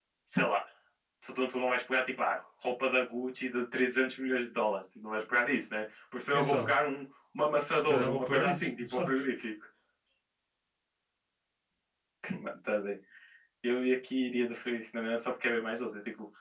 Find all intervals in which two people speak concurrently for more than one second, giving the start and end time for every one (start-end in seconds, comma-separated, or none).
7.7-9.1